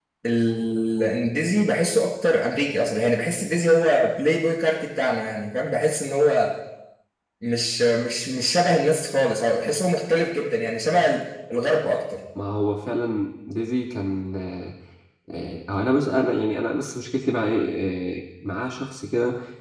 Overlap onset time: none

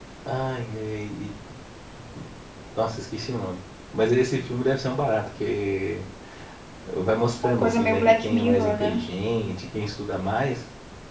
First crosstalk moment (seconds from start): 7 s

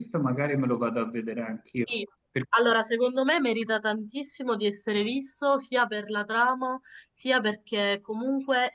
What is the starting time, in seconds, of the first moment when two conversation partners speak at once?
none

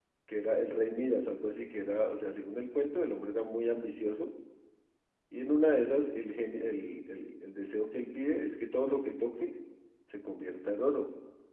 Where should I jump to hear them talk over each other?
none

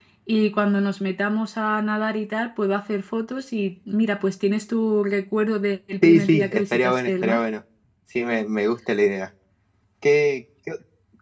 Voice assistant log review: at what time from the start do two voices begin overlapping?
6 s

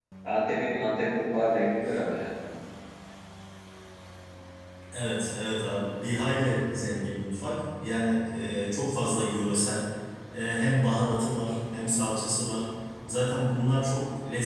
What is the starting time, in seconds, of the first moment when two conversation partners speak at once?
none

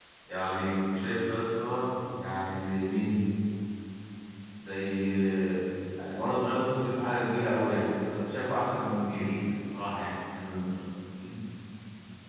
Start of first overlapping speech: none

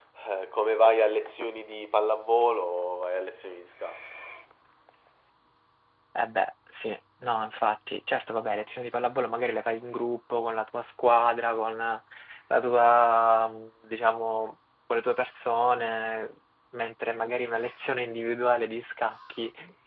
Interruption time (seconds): none

